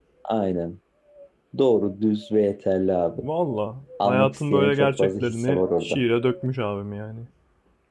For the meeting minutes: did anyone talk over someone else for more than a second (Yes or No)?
Yes